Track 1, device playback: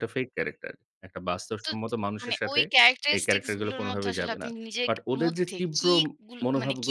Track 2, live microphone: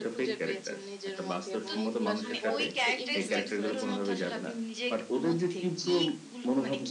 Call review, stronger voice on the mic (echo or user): echo